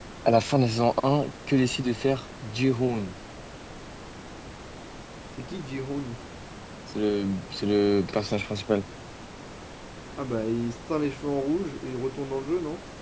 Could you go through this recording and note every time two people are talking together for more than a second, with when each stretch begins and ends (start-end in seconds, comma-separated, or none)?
none